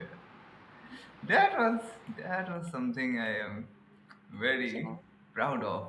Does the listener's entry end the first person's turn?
No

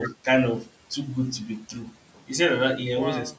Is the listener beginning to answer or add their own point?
No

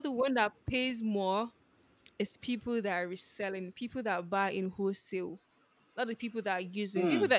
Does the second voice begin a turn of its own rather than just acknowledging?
No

